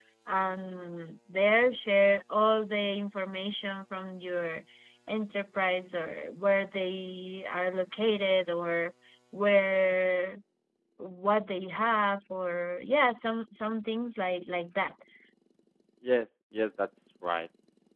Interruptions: none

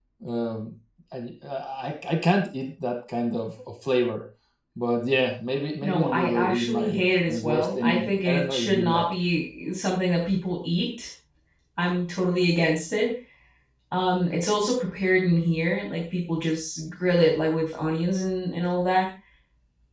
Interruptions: present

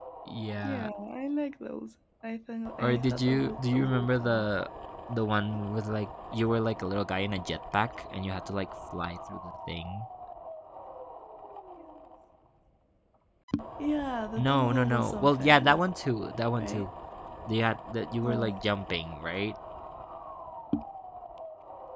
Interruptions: present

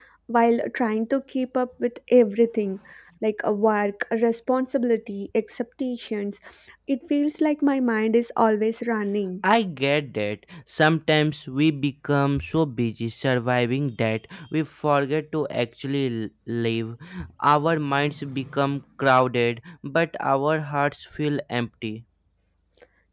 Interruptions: none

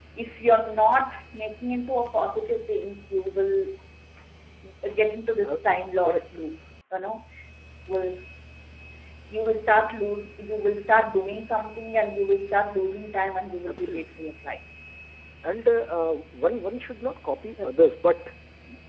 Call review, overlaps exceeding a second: none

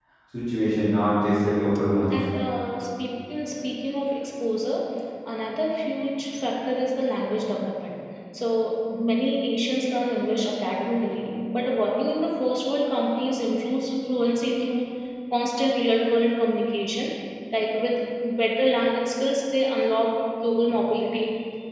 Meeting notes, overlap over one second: none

